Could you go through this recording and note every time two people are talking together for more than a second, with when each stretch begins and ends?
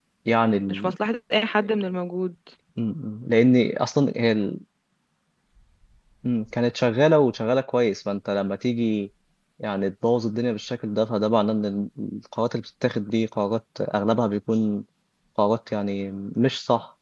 none

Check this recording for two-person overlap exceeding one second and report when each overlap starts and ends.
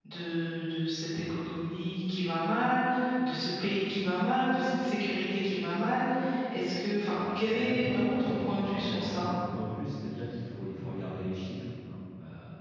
7.1-9.3

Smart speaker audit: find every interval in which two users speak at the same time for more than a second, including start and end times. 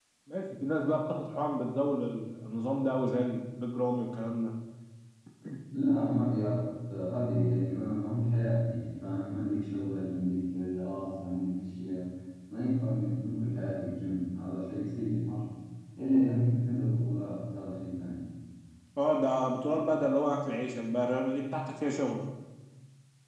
none

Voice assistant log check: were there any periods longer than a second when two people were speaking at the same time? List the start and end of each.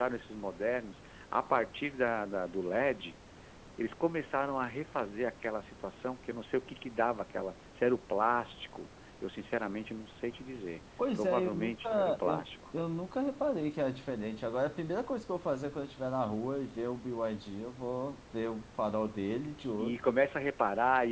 11.1-12.5

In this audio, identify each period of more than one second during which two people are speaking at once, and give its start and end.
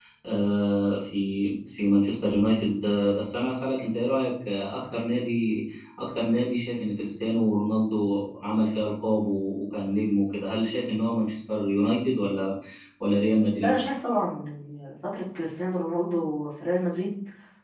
none

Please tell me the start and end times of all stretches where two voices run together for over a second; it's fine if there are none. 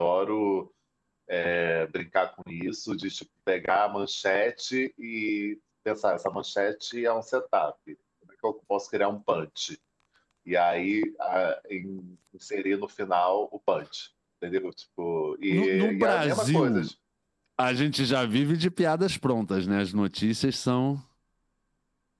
15.5-16.9

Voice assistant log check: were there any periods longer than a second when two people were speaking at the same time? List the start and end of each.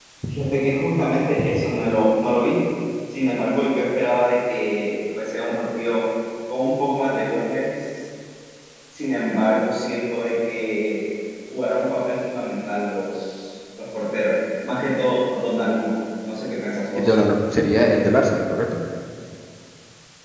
none

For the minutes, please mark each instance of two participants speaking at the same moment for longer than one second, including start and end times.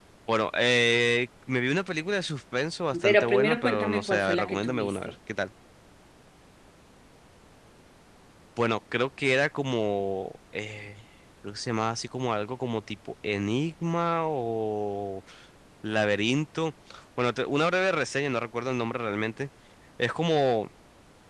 3.0-5.0

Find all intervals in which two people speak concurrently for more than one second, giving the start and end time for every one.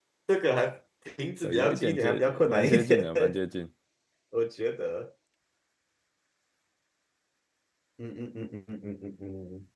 1.4-3.1

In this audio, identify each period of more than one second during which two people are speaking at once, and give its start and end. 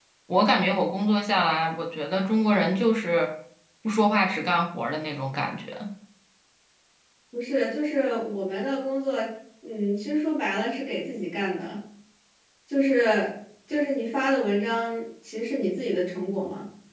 none

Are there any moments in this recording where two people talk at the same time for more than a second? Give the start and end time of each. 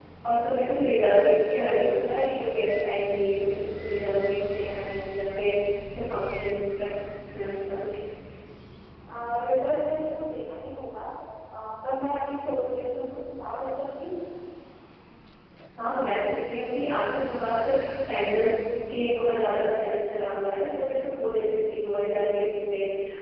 none

